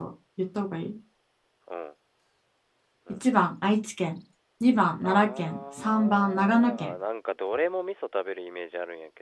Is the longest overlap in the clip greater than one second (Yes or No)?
Yes